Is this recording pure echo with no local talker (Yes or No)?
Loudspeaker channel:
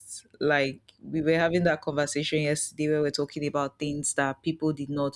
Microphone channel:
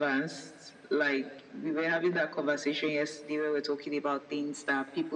Yes